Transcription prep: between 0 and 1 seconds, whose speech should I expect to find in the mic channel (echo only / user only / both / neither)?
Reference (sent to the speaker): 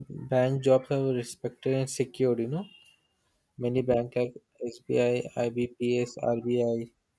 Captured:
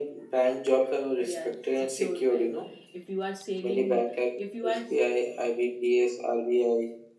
echo only